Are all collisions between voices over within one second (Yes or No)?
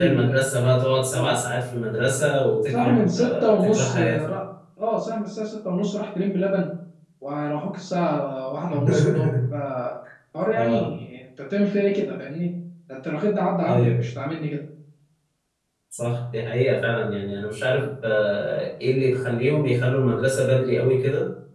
No